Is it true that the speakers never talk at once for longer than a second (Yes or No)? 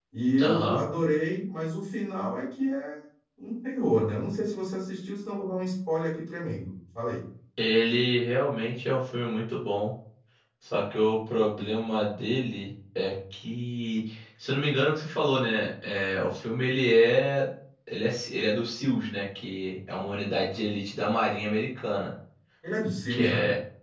Yes